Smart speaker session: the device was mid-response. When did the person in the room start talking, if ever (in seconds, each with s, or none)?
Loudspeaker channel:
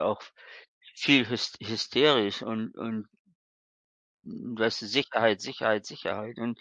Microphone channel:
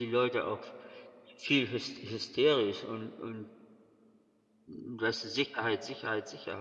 none